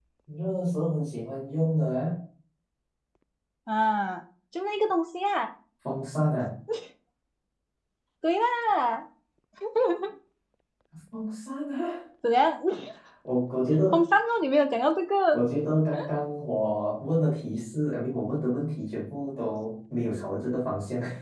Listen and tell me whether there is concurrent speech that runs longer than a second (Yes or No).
No